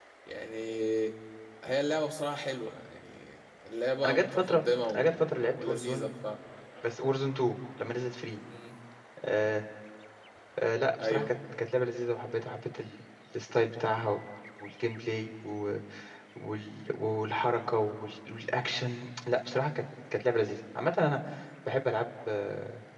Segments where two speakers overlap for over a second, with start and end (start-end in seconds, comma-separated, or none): 4.0-6.1